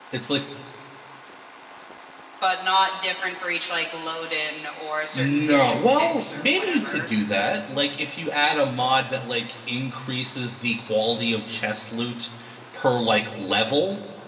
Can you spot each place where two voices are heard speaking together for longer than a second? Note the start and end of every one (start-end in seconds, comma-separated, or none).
5.1-7.1